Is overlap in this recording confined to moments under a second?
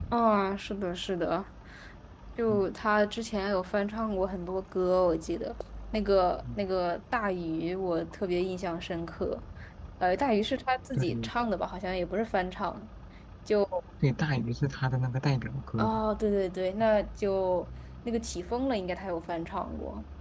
Yes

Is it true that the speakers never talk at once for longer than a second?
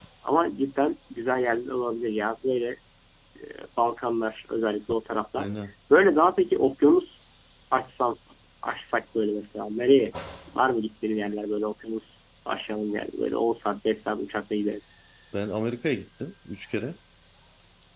Yes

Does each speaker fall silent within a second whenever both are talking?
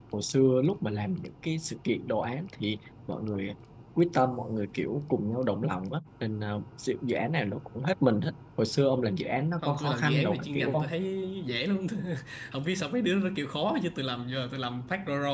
No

